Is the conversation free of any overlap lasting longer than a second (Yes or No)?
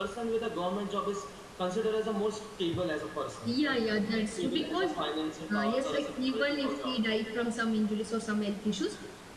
No